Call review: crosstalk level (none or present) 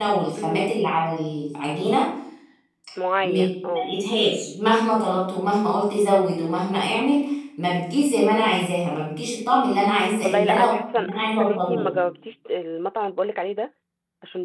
present